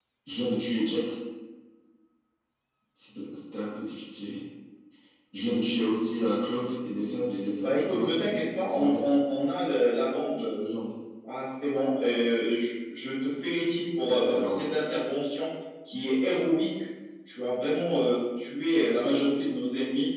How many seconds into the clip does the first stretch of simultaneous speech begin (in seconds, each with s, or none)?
7.6 s